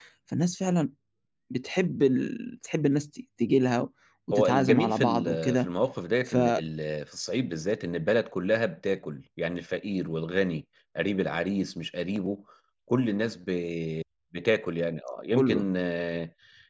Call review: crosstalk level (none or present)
present